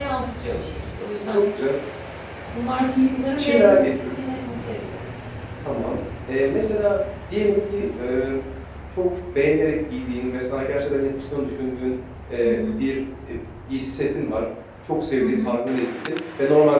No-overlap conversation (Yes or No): No